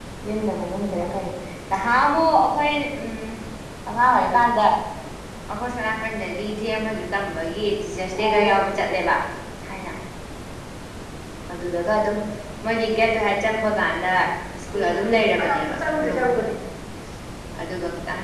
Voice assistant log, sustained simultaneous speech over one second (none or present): present